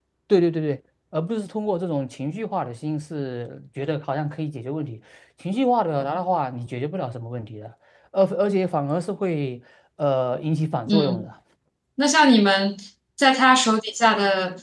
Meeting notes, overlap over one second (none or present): none